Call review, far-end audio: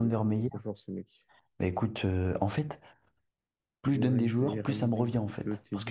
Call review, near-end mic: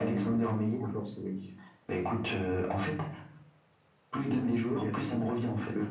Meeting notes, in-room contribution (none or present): none